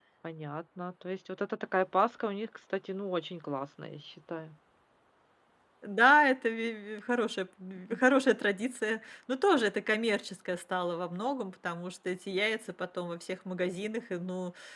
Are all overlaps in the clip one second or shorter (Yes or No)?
Yes